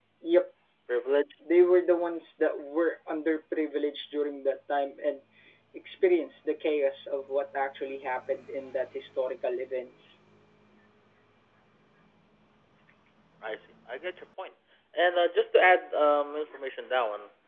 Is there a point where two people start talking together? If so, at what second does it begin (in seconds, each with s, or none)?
none